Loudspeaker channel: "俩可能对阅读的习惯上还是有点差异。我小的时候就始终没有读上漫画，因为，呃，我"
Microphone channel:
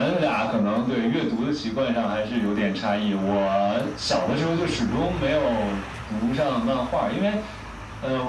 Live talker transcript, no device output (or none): none